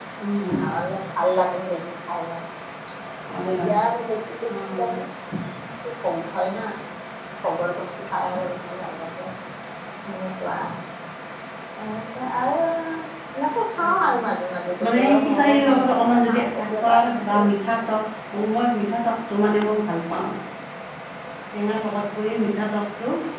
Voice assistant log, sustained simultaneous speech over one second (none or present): present